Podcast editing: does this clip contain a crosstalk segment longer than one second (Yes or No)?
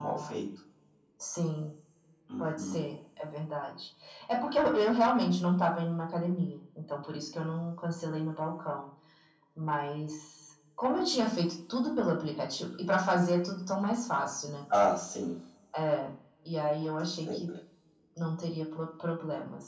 No